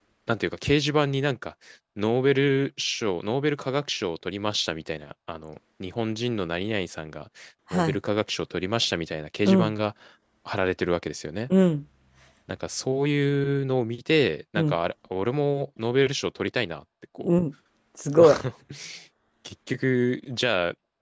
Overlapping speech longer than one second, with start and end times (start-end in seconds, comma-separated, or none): none